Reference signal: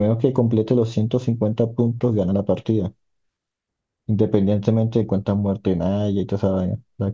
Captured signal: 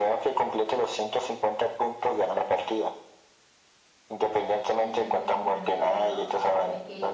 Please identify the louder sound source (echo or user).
echo